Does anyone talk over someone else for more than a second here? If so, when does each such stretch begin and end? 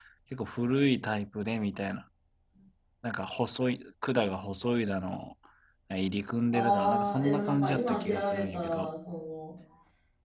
6.5-9.0

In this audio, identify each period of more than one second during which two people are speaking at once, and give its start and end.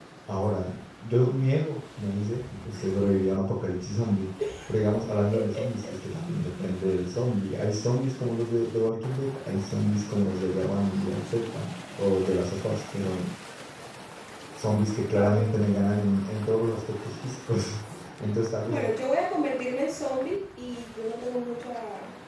none

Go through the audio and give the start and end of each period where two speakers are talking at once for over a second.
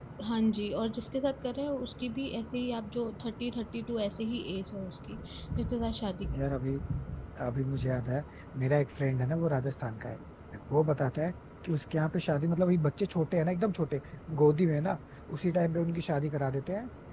none

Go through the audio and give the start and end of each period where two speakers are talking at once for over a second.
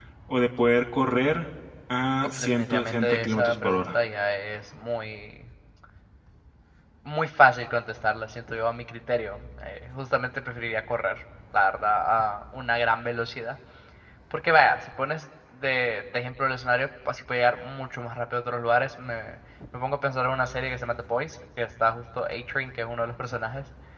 2.2-4.0

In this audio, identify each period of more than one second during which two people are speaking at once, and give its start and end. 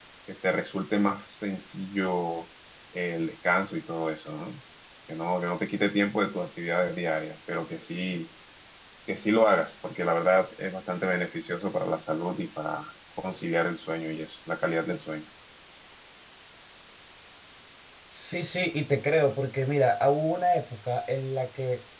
none

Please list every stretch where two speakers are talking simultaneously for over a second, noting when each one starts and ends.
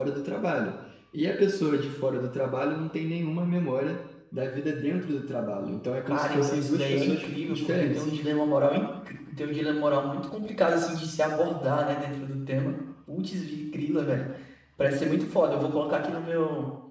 6.0-8.1

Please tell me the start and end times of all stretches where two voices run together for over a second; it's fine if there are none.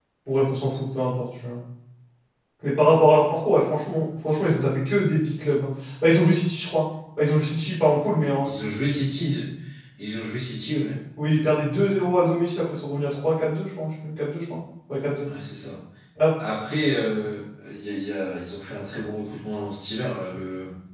none

